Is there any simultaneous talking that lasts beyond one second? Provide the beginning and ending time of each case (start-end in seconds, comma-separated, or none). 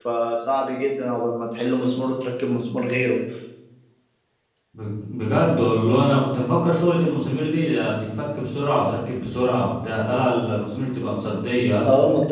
none